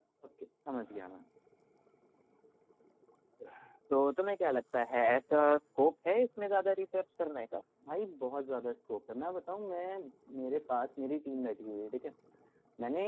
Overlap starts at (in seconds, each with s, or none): none